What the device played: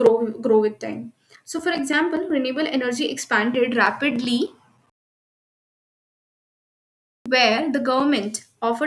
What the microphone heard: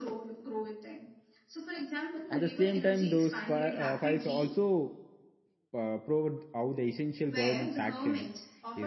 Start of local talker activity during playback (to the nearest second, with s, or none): 2 s